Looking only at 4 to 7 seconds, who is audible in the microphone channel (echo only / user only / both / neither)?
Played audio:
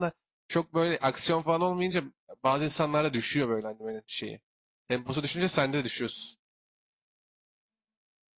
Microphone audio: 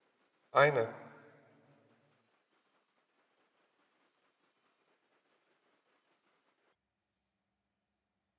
neither